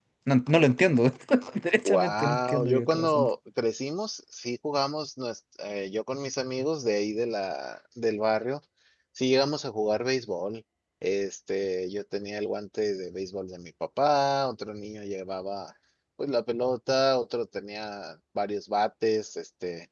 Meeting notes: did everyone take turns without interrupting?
No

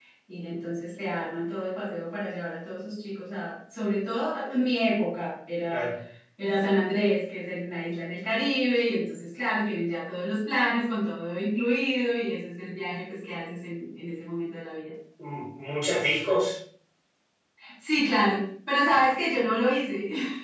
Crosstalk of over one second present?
No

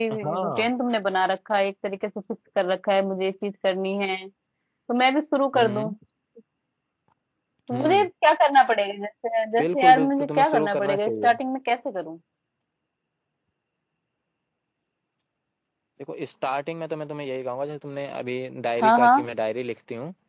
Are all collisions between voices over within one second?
No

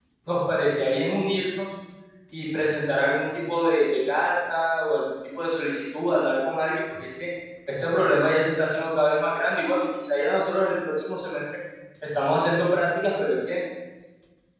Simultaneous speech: No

